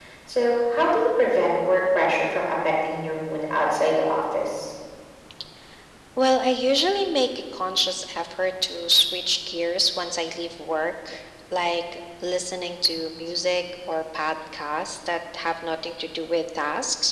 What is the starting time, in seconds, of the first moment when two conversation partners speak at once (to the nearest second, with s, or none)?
none